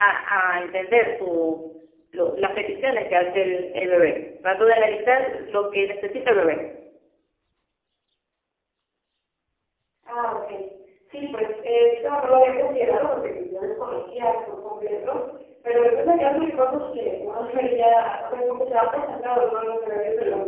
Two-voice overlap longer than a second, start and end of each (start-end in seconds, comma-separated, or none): none